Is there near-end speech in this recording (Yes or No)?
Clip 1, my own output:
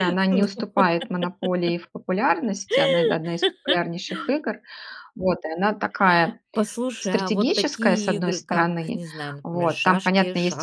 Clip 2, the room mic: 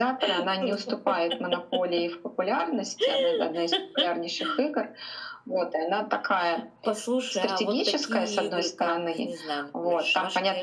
No